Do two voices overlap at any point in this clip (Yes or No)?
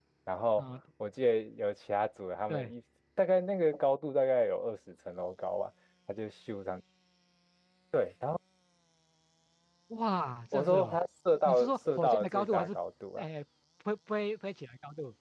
Yes